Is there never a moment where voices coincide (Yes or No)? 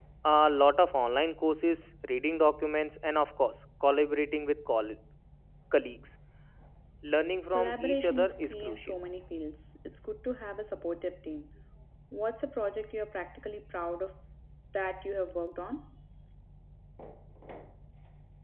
No